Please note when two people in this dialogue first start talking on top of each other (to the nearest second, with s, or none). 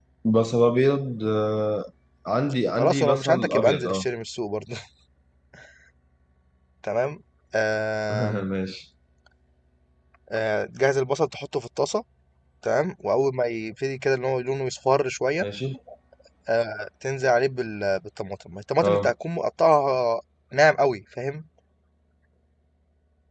3 s